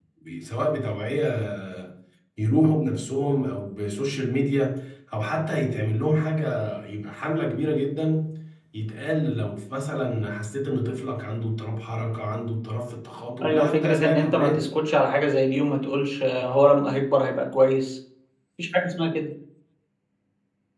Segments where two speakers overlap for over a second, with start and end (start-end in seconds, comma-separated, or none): 13.4-14.7